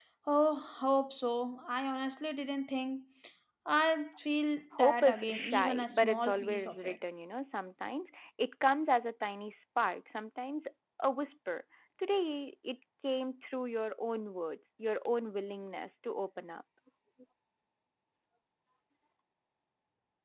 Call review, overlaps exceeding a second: present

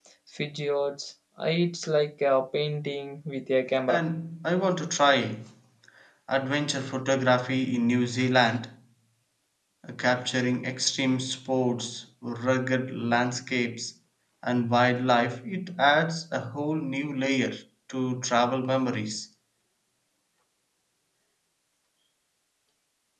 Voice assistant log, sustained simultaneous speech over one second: none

